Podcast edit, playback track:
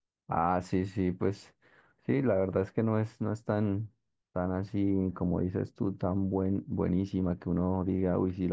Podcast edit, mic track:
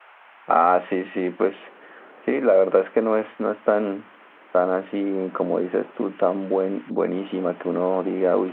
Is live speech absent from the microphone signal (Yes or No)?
Yes